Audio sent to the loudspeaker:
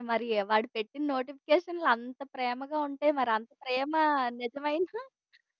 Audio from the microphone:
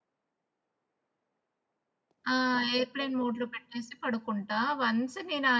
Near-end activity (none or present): present